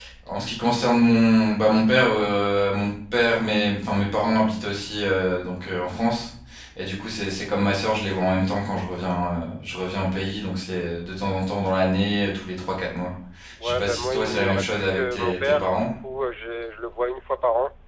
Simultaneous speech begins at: 13.6 s

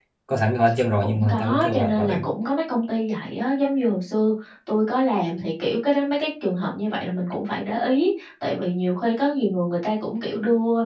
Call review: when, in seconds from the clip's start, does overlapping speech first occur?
1.0 s

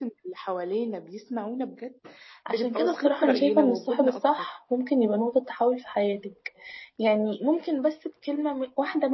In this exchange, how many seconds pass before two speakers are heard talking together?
2.5 s

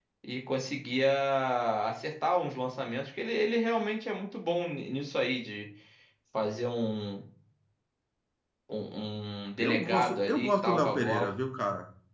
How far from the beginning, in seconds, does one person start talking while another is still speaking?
9.6 s

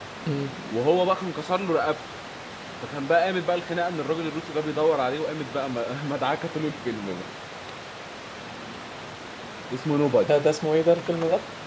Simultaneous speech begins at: none

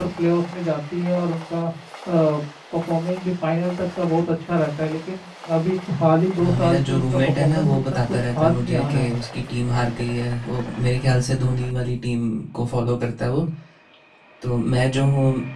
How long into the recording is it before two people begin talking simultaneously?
6.4 s

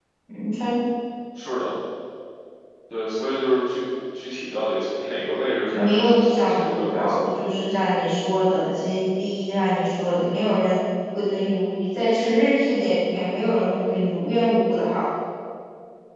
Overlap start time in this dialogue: 5.7 s

